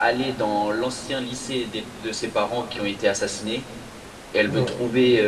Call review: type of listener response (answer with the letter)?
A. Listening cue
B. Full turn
A